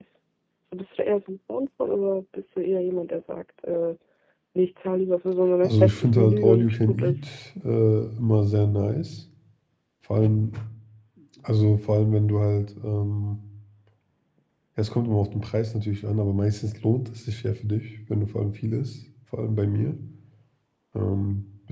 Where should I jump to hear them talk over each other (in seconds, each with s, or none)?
5.6 s